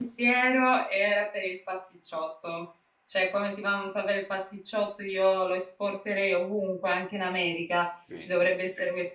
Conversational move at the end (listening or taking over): listening